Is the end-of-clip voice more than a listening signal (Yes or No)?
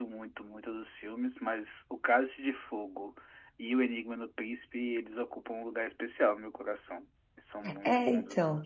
Yes